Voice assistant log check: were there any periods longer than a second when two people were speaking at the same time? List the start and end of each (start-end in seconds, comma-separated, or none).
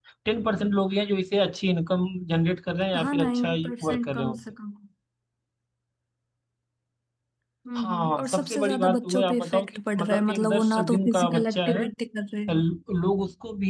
3.0-4.4, 7.8-11.8